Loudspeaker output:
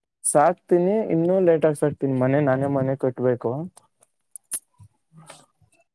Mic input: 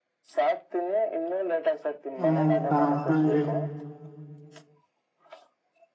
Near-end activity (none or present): present